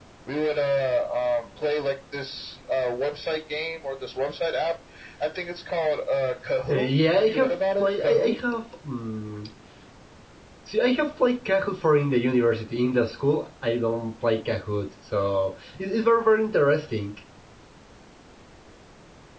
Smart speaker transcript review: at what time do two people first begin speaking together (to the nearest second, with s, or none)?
7 s